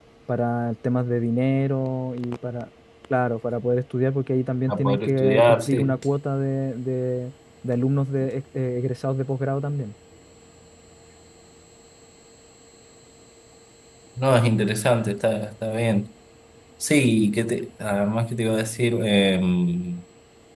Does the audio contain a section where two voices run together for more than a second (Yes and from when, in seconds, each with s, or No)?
Yes, from 4.7 s